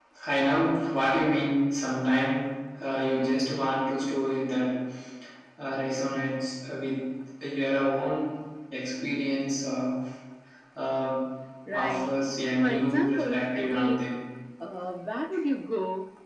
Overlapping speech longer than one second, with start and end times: 12.6-14.1

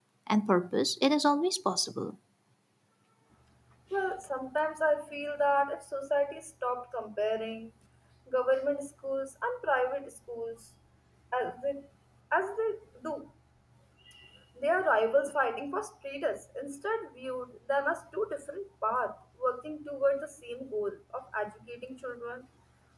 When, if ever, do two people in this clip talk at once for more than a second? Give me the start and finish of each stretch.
none

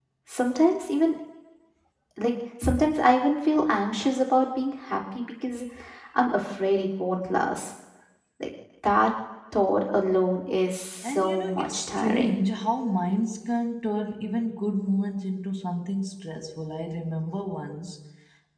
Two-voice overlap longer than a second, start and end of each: 11.0-12.3

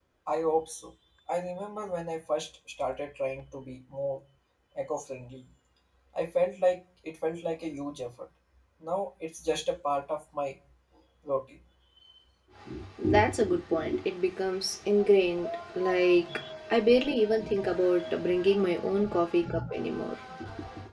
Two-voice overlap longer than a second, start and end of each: none

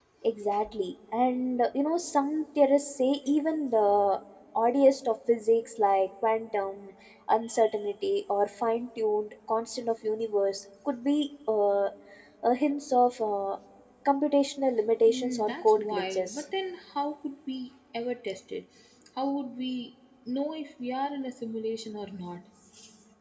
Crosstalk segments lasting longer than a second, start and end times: 15.1-16.4

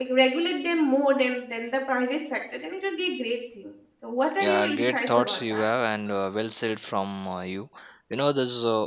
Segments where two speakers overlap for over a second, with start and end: 4.4-5.6

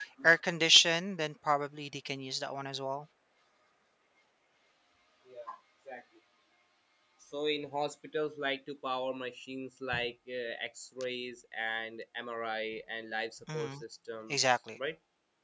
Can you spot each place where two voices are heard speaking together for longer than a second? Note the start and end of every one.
none

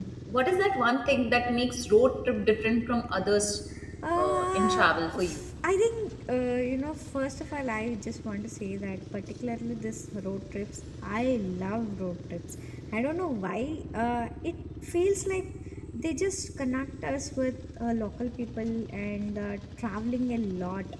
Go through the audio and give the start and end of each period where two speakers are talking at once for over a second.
4.2-5.5

